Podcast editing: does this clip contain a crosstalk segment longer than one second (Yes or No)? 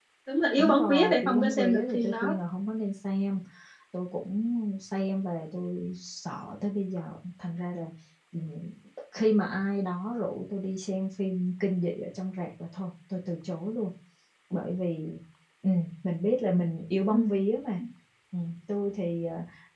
Yes